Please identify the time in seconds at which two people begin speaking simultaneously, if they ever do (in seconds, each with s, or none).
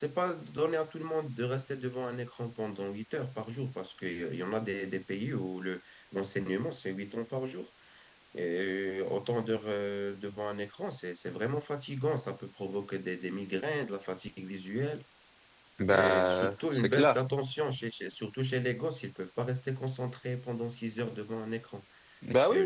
15.9 s